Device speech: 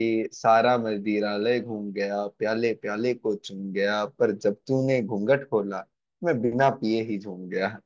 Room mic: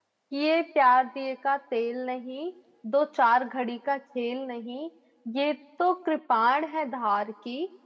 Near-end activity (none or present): present